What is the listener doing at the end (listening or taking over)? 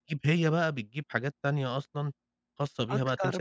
listening